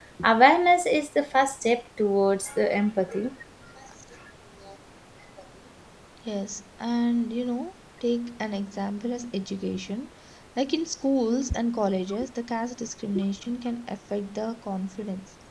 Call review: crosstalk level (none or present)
none